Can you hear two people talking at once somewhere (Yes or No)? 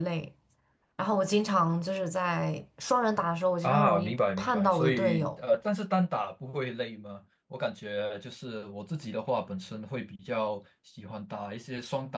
Yes